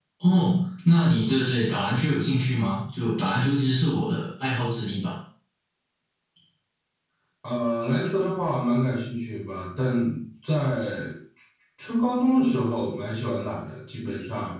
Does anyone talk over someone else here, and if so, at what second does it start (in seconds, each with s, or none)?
none